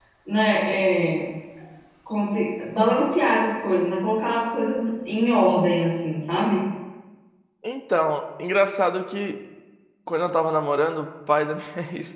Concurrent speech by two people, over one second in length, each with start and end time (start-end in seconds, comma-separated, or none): none